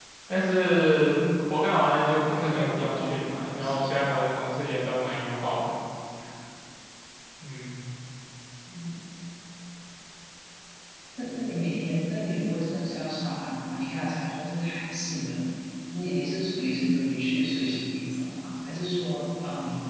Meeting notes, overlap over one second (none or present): present